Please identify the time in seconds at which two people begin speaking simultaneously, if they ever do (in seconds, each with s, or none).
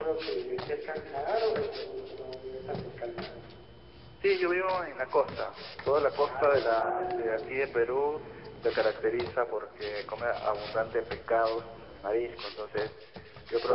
6.2 s